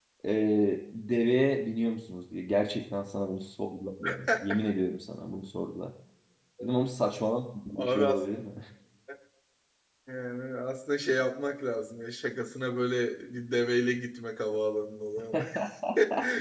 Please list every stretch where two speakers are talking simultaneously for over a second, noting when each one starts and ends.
none

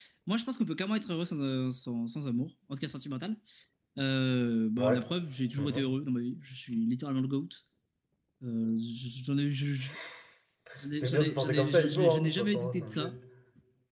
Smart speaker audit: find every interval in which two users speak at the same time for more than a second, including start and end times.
10.9-13.1

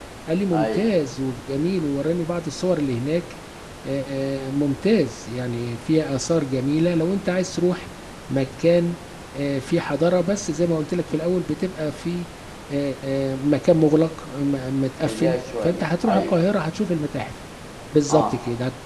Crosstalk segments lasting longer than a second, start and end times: 15.1-16.3

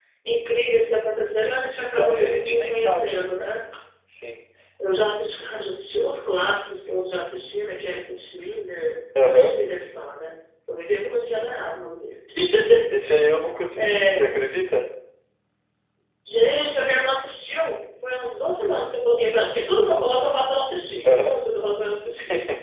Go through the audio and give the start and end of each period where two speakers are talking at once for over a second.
1.8-3.3

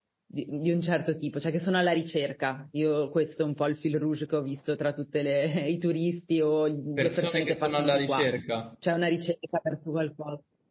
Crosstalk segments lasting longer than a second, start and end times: 7.0-8.3

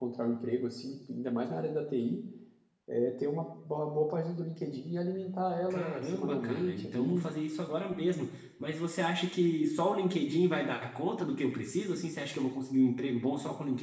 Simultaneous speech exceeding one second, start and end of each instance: 5.7-7.3

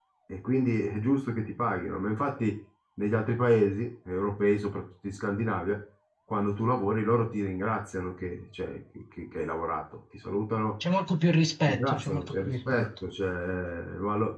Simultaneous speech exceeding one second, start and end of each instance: 11.7-12.9

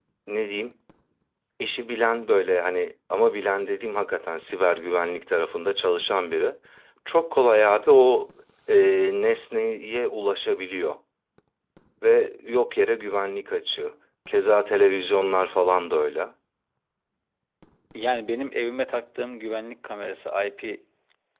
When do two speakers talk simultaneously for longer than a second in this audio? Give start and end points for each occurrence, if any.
none

